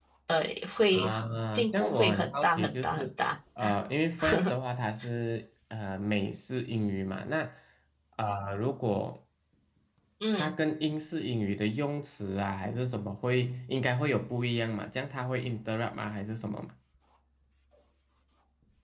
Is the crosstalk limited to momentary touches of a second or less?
No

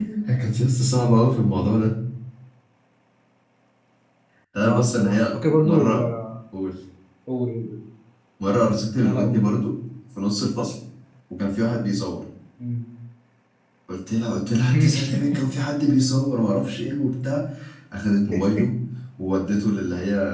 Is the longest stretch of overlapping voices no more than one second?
No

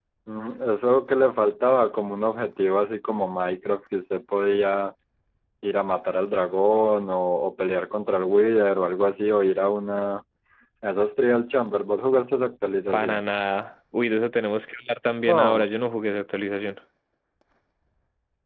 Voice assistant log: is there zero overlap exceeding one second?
Yes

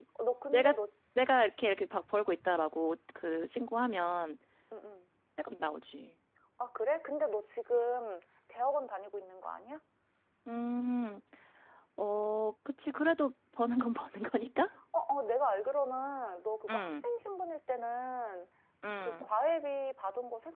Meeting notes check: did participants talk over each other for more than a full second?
No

